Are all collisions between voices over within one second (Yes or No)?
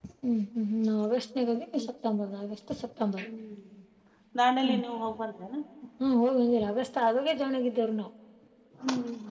Yes